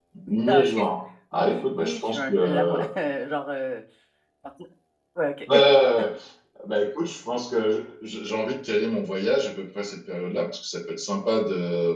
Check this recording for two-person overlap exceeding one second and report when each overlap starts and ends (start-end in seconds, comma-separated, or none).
1.3-2.8